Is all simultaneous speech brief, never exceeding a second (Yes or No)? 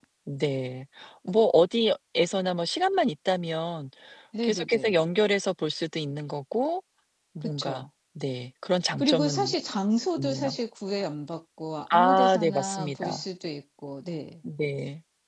No